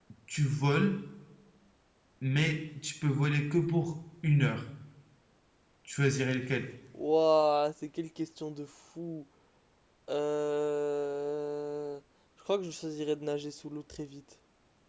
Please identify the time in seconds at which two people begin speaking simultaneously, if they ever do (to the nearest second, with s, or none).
none